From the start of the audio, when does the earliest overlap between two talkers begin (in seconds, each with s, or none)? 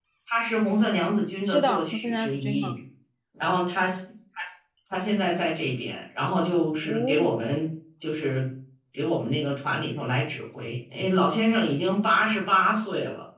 1.4 s